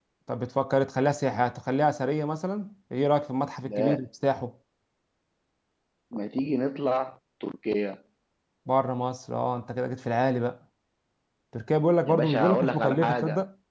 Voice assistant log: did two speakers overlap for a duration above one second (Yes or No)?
Yes